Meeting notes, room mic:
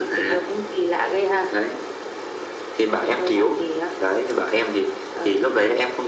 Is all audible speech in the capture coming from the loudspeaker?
Yes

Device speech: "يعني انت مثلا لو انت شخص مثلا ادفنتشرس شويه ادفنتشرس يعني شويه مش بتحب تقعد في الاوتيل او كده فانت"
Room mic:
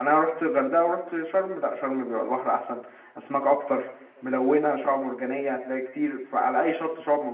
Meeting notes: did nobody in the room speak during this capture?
No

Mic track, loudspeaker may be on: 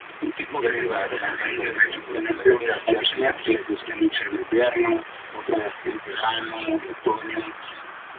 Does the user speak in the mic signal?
Yes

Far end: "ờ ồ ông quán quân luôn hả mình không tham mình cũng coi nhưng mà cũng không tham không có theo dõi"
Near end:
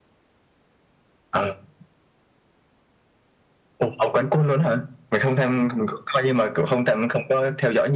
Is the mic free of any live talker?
Yes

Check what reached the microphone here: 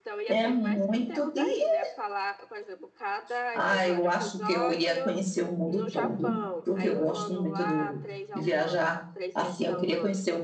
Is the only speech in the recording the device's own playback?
No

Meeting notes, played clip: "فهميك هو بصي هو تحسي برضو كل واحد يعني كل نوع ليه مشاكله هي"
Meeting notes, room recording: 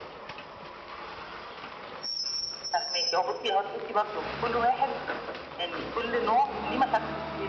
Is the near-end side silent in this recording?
Yes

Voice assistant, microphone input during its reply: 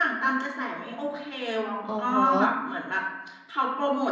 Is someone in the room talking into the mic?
Yes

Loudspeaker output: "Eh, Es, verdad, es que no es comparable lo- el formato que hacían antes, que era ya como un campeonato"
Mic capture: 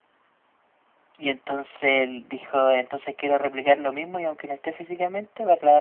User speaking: Yes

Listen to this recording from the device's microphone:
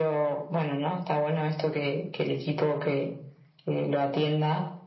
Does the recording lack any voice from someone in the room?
Yes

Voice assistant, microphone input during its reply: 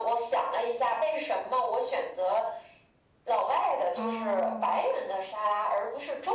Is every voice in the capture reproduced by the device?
No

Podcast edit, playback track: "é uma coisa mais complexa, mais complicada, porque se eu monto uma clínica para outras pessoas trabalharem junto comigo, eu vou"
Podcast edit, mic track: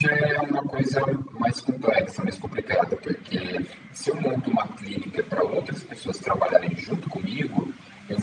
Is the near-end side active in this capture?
No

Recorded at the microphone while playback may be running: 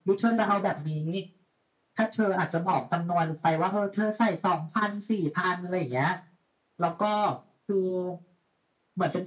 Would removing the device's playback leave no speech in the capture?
Yes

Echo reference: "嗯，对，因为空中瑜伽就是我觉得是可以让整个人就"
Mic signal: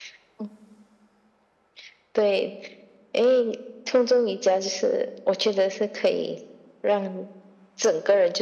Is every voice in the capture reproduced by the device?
Yes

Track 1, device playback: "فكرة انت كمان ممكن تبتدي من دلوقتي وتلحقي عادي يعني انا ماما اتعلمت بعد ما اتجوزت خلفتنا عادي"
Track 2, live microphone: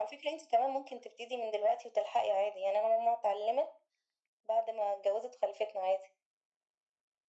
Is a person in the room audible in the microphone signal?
No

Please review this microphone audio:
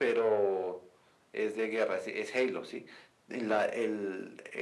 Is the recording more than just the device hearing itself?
No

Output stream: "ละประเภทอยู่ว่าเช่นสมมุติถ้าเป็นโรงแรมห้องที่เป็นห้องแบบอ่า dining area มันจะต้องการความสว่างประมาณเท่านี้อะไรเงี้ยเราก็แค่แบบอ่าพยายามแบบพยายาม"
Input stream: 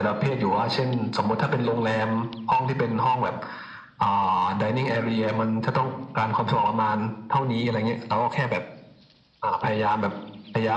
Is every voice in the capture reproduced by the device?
Yes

